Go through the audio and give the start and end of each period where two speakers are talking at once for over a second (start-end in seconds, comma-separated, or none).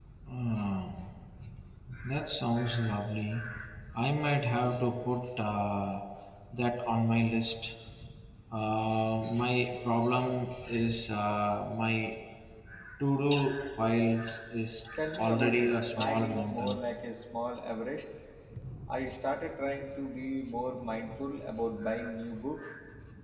15.2-16.8